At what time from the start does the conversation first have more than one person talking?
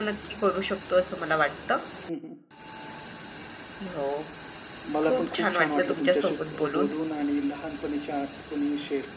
5 s

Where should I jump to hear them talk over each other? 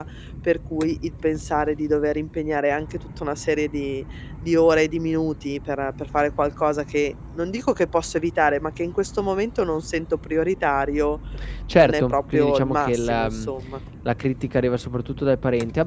12 s

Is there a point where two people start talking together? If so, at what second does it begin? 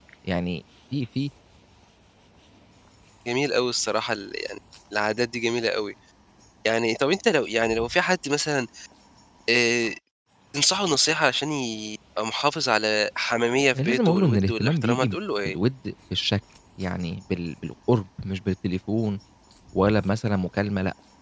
14 s

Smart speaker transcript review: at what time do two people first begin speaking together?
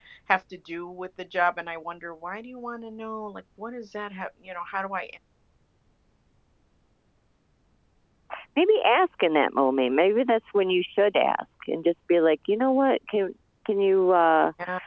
none

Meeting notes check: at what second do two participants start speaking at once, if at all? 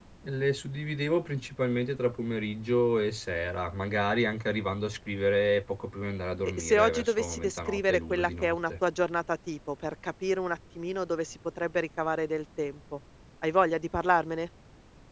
6 s

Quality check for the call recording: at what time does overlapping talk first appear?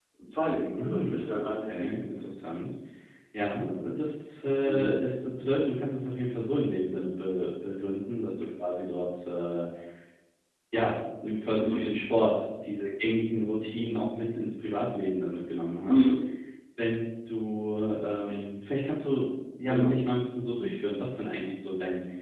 1 s

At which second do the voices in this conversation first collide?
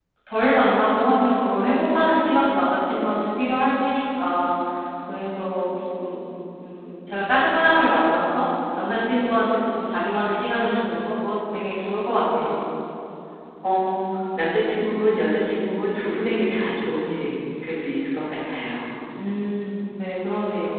none

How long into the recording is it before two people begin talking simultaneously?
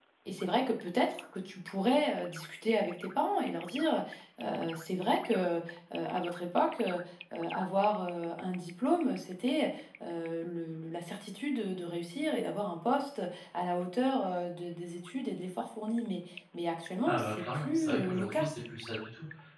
17 s

